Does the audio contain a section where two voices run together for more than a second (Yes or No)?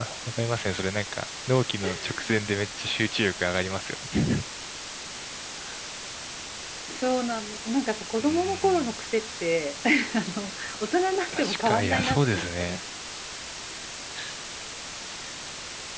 Yes